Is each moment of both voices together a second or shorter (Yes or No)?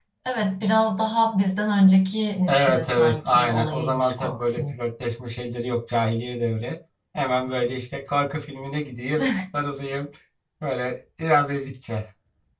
No